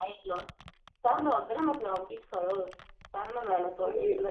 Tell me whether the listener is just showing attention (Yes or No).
No